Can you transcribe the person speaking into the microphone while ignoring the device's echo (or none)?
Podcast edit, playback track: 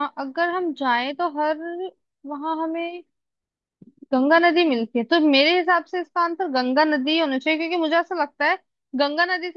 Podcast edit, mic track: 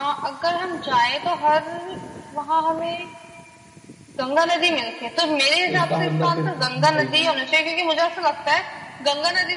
इसका मतलब फिर तो तुम भाई